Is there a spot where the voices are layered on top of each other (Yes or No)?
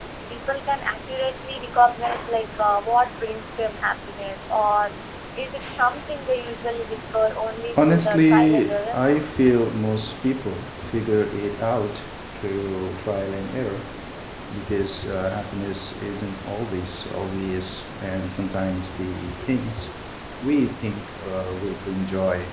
Yes